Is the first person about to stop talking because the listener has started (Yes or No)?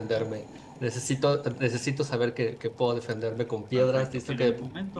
Yes